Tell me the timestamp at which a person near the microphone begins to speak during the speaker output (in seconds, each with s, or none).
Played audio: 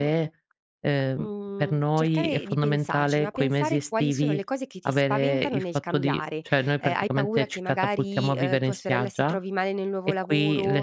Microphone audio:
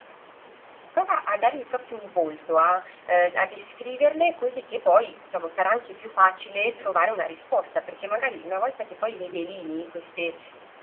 0.9 s